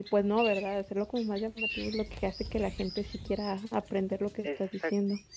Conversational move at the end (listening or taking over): taking over